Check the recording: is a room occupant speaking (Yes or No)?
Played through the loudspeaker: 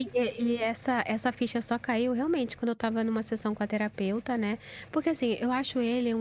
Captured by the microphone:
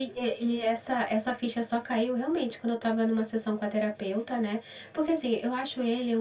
No